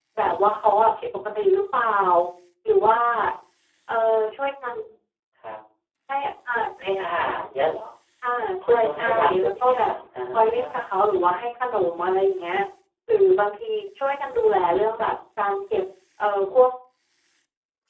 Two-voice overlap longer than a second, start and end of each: 8.6-9.9

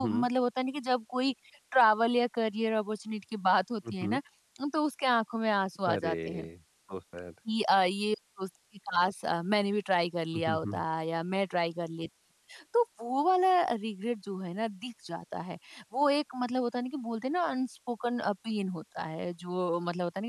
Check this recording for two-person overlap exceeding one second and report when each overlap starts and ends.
none

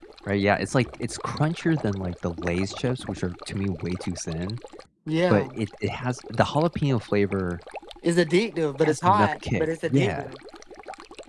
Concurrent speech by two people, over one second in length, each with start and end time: 8.8-10.3

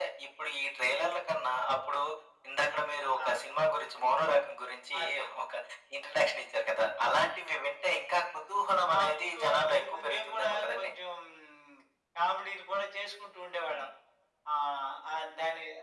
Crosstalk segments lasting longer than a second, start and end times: 9.0-10.9

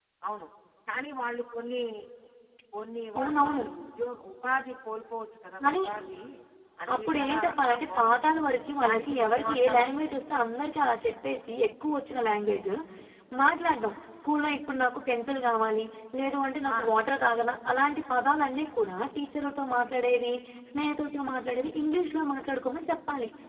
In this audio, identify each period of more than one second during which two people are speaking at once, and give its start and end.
6.9-8.3, 8.8-10.1

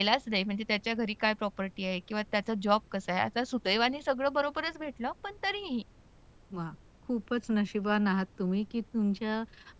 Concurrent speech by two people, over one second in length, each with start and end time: none

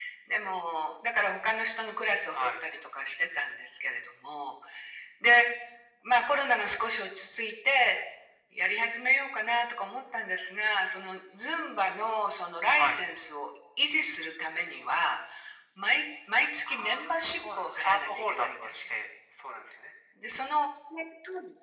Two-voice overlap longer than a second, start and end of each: 16.7-19.0

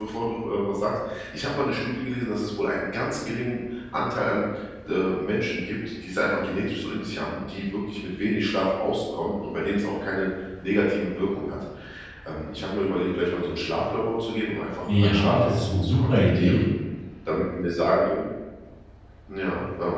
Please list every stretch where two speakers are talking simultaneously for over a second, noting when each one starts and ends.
14.9-16.6

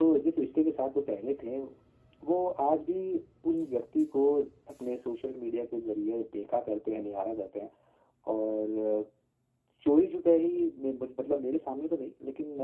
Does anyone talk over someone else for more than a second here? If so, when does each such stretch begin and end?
none

